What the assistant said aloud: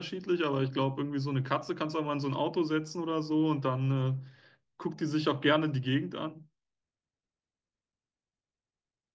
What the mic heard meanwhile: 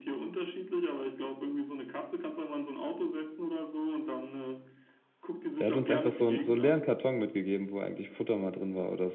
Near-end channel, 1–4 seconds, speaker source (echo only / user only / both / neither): echo only